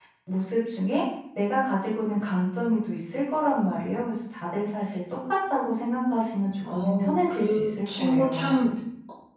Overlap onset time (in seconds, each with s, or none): 6.6 s